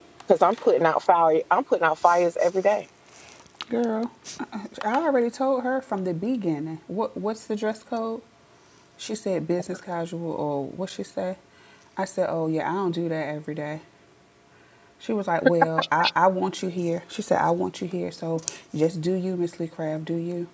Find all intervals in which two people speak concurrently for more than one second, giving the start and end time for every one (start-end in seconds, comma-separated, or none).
none